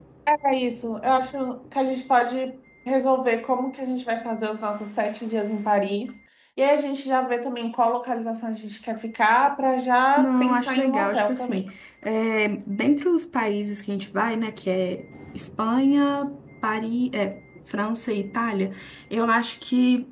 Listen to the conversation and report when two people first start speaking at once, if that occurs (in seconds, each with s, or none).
10.2 s